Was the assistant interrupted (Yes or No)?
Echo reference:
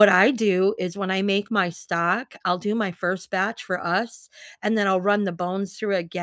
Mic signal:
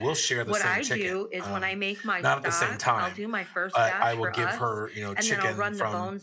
Yes